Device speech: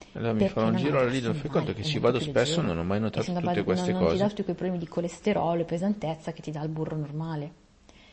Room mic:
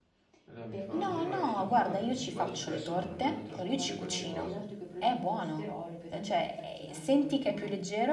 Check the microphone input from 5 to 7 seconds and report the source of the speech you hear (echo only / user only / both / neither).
both